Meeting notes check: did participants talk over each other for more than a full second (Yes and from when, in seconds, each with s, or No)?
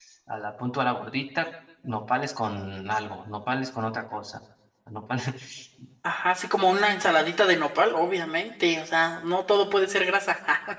No